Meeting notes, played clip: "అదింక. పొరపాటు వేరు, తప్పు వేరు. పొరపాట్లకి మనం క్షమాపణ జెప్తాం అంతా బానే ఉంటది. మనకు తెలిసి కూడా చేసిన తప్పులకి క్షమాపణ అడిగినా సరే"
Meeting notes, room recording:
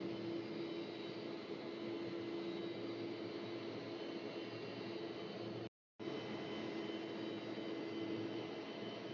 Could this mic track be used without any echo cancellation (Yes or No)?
Yes